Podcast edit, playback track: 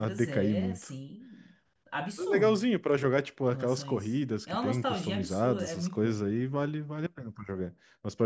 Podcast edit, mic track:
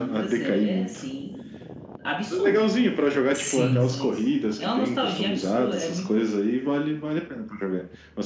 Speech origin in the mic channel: both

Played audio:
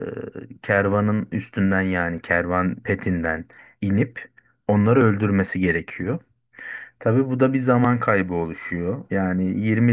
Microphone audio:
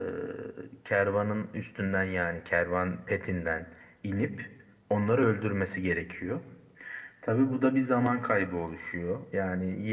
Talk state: echo only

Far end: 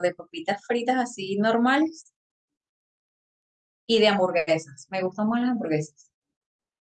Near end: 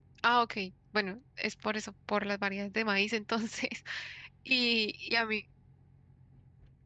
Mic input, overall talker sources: user only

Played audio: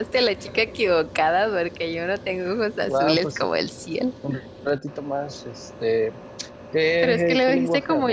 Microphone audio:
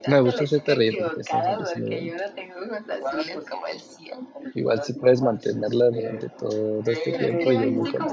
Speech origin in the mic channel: both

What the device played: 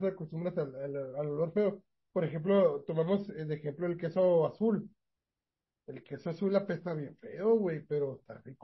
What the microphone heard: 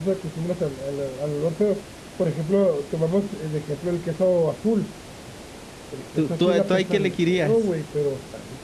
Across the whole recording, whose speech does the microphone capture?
both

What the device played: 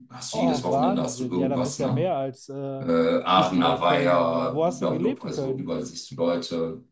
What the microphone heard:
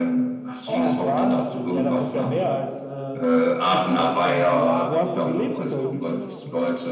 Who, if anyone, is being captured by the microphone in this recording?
both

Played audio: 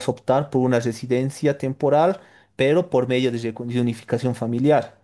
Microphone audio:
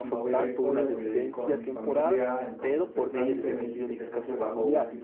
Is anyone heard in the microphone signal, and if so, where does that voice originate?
both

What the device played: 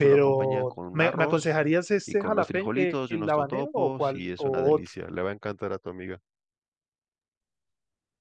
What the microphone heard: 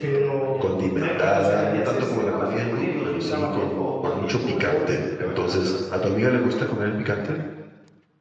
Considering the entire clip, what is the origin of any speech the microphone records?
both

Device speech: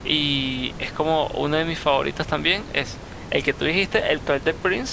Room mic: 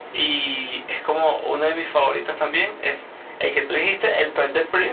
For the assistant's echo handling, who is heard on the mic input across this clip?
echo only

